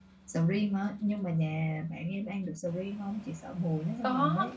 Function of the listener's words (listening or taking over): taking over